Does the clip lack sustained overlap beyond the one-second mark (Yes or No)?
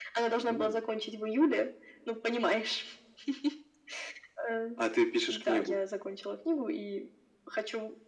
Yes